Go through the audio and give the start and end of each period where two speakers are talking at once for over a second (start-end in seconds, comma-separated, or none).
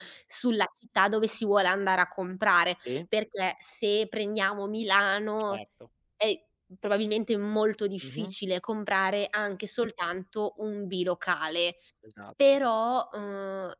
none